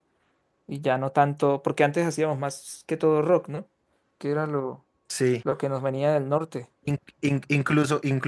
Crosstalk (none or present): none